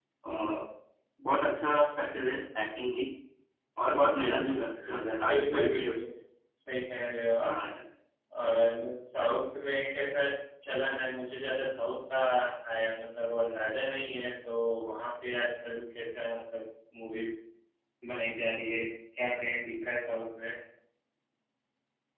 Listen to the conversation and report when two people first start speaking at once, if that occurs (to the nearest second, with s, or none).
4 s